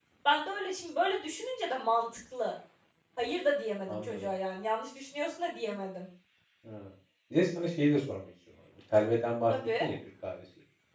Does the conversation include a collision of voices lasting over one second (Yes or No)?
No